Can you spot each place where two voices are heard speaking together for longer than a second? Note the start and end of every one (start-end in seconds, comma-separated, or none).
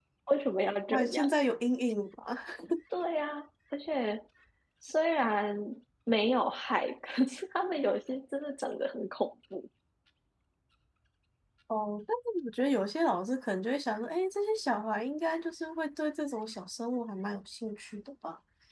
none